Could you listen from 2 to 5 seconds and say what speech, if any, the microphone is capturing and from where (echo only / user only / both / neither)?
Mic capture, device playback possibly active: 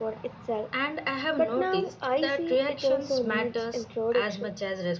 echo only